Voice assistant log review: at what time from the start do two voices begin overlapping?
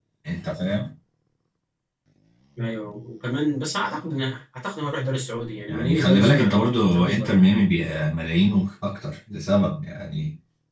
5.7 s

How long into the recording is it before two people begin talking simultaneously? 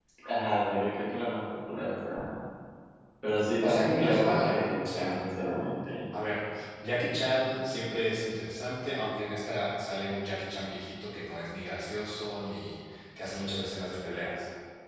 3.6 s

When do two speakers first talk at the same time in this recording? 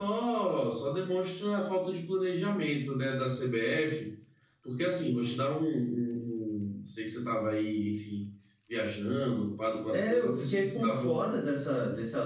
9.9 s

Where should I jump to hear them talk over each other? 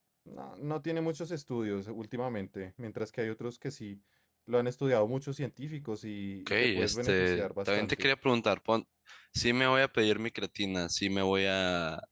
6.5 s

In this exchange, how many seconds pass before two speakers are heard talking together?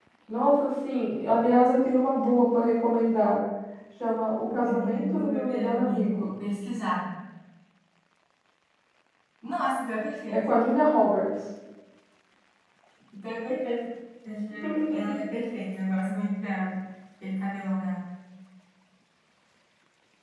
4.7 s

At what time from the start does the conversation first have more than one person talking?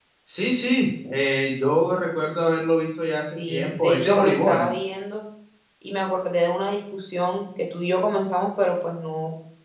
3.2 s

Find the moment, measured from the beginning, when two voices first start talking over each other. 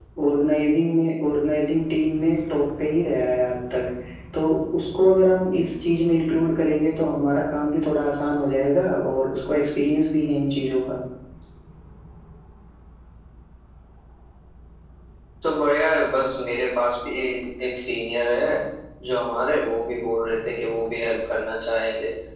none

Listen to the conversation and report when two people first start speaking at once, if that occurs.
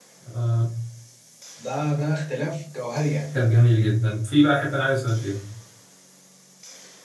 none

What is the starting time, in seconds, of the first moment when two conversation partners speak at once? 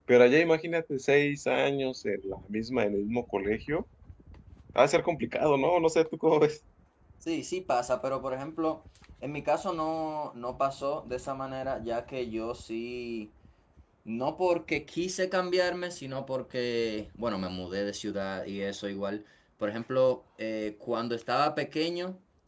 none

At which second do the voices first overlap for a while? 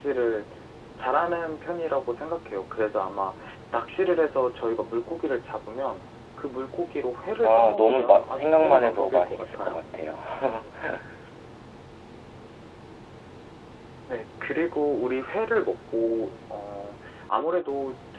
7.4 s

